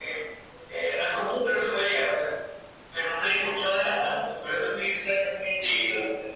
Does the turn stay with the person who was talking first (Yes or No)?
No